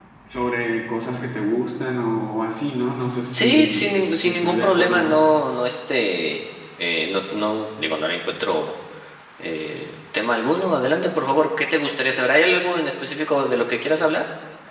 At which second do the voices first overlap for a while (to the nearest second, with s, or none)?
3 s